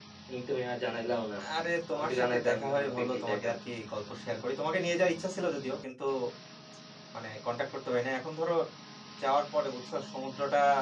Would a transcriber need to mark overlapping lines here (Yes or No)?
Yes